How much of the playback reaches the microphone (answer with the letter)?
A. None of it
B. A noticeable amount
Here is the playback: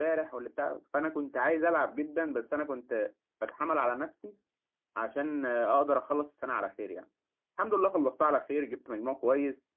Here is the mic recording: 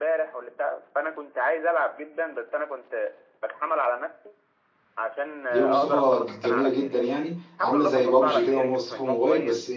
B